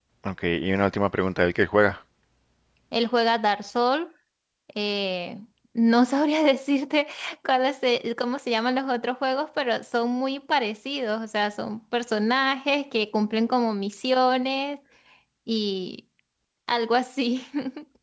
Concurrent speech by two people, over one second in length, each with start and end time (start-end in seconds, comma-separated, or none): none